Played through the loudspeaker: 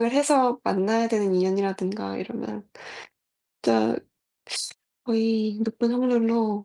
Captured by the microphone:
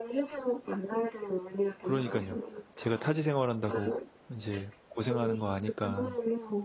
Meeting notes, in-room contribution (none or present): present